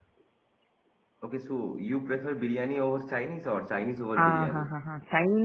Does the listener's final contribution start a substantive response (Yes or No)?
Yes